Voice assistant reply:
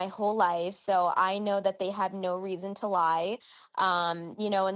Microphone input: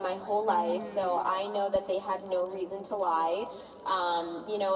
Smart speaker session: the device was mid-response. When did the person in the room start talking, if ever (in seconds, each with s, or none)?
0.5 s